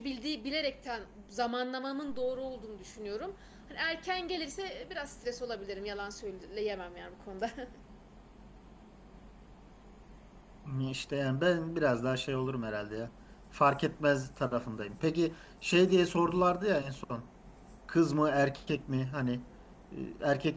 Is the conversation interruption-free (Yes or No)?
Yes